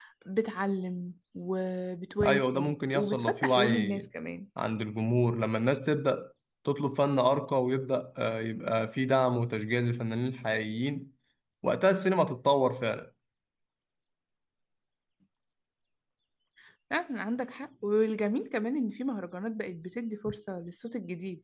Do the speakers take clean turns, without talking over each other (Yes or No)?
No